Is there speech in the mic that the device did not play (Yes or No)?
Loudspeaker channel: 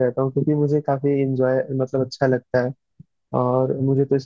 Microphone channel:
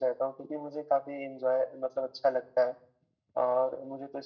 No